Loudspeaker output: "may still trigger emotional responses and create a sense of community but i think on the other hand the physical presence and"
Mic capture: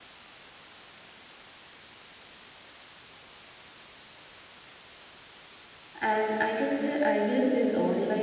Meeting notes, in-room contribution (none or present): present